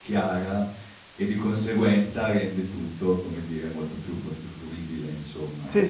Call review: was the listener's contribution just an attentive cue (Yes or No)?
No